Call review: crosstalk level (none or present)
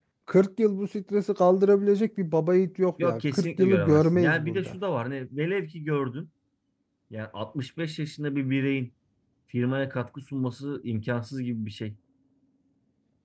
present